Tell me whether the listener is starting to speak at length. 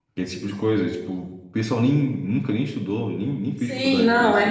Yes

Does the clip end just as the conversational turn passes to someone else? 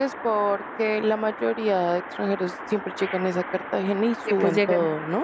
Yes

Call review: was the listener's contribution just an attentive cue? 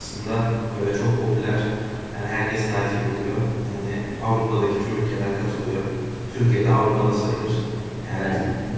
Yes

